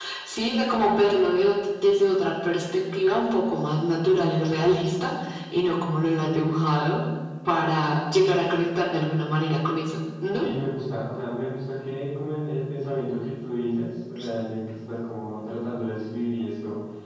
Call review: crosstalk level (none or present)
none